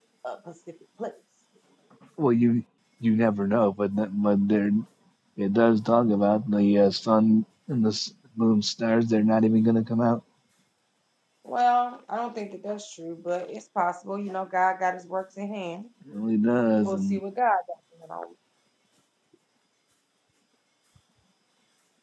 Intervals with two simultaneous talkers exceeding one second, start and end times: none

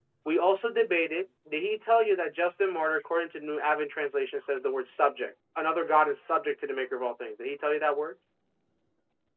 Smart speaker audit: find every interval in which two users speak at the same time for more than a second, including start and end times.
none

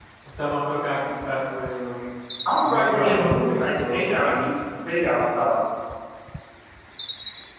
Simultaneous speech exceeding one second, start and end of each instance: 2.6-4.4

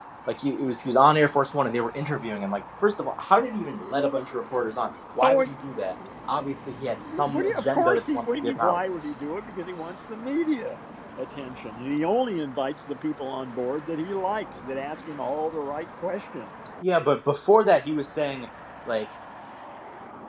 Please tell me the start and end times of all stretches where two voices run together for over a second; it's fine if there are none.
7.2-8.8

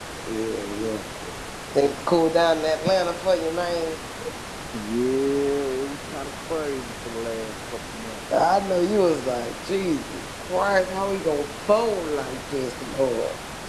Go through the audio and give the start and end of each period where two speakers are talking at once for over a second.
none

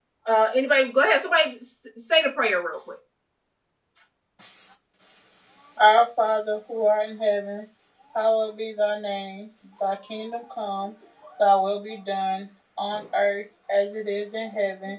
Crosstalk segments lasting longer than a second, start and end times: none

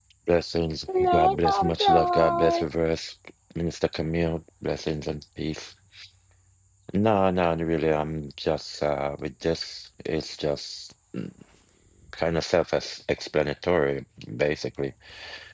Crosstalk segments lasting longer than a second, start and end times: 1.0-2.6

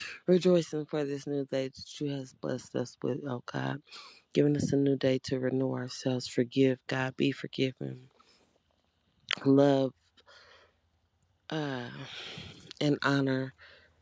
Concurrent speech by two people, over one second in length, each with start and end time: none

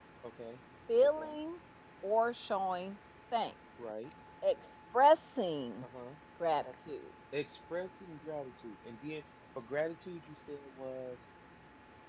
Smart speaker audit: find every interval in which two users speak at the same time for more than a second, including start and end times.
none

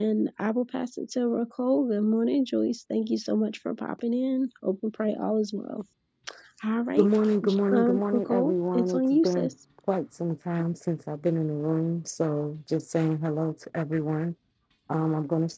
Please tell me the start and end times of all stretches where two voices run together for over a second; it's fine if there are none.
7.7-9.5

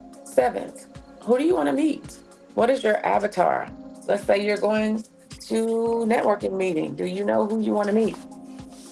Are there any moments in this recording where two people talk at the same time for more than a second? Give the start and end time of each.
none

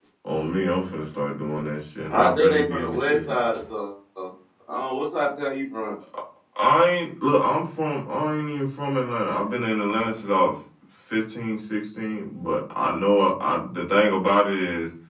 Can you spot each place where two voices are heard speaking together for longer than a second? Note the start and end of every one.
2.1-3.4

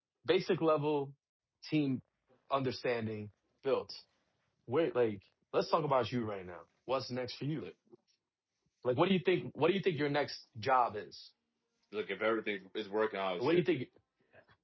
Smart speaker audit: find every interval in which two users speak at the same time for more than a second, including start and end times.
none

